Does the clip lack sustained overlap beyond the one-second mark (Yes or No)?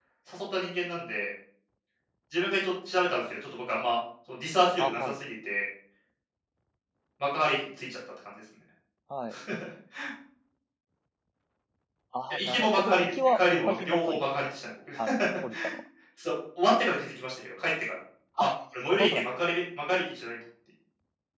No